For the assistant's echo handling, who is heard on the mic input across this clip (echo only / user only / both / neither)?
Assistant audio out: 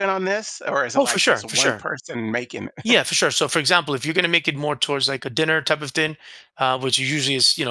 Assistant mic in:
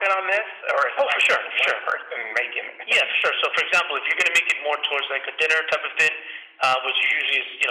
echo only